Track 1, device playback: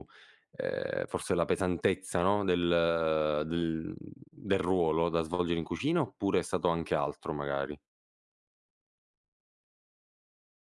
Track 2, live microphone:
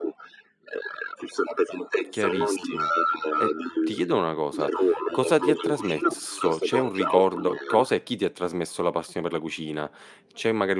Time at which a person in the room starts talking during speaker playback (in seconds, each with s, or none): 2.1 s